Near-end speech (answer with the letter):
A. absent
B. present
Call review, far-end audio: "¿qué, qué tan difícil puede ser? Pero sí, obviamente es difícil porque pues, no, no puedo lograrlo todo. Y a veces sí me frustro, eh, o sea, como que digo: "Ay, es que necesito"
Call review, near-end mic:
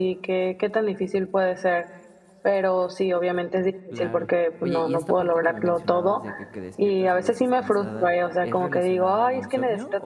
B